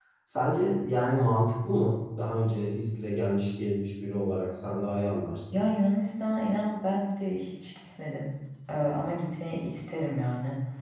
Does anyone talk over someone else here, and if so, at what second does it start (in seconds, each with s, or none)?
none